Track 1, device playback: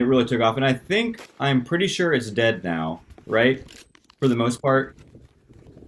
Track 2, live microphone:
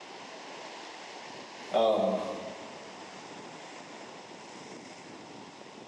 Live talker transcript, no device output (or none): Um,